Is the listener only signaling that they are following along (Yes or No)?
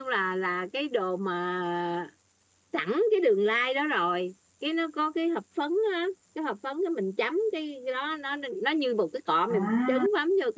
Yes